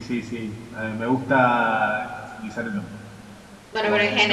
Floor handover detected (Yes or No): Yes